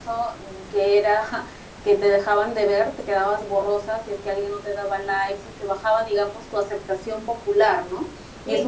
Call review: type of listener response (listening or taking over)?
listening